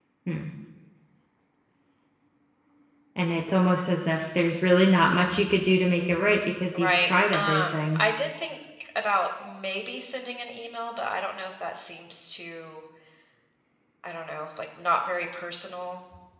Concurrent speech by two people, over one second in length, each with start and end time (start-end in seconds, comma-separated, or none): 6.8-8.0